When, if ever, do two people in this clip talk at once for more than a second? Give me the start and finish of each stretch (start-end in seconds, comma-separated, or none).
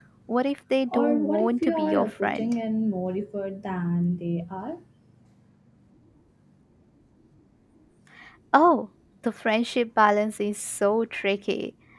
0.9-2.5